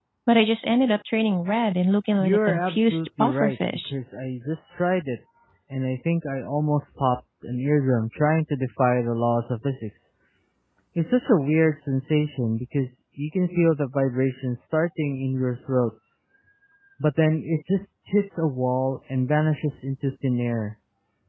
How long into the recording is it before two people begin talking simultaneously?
2.2 s

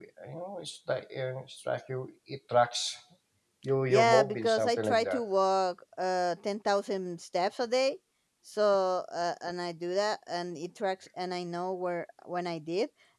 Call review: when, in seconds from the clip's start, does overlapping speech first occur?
3.9 s

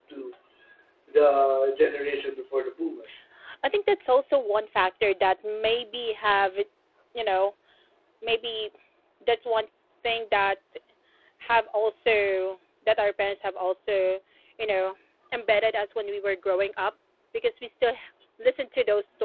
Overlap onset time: none

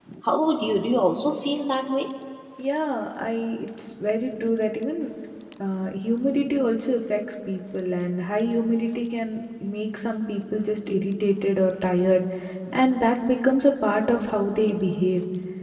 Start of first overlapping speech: none

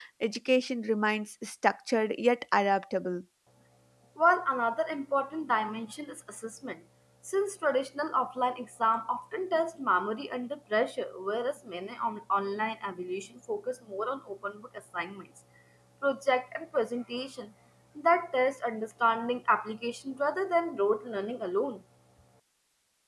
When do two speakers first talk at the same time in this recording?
none

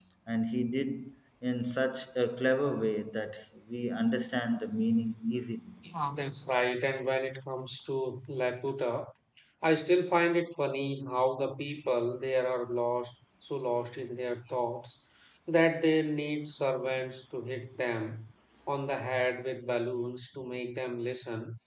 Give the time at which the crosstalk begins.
none

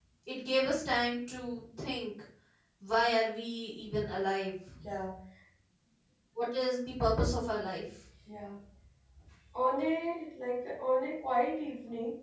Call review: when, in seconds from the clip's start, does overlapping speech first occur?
none

